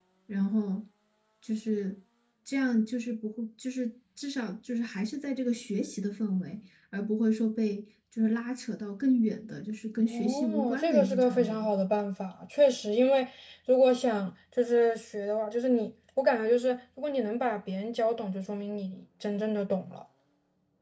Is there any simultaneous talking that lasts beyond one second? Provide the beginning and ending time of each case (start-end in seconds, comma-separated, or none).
10.1-11.8